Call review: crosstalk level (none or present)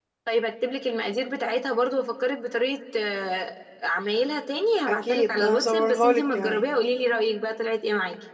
present